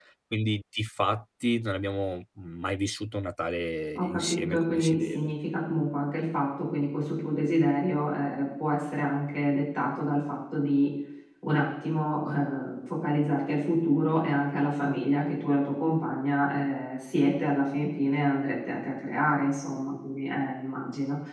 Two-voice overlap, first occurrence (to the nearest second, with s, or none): 4 s